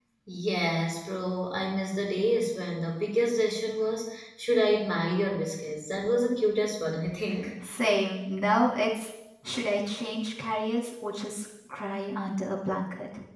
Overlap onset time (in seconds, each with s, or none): none